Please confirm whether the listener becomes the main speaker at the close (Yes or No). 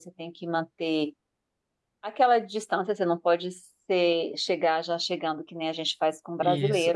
Yes